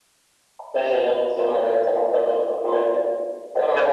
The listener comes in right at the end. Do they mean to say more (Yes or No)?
No